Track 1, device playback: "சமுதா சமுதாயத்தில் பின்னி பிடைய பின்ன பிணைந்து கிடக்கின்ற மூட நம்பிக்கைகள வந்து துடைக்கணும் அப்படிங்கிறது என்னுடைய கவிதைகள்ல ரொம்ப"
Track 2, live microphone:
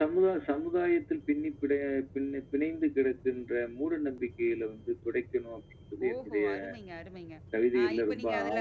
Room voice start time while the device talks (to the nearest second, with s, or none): 6 s